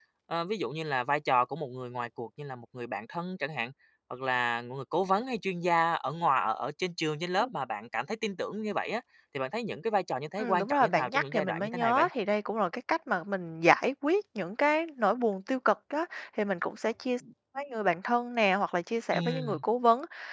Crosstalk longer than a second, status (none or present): present